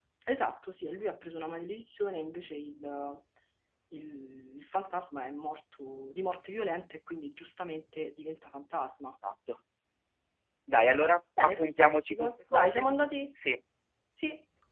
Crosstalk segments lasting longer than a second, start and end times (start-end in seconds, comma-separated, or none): 11.4-12.9